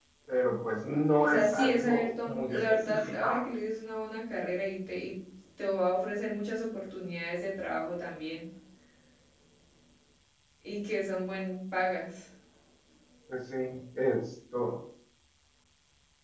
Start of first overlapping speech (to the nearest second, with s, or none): 1 s